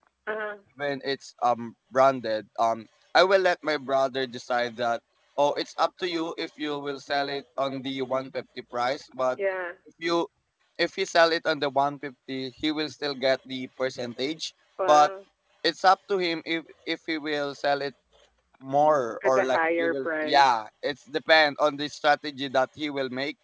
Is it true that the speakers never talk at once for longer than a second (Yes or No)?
No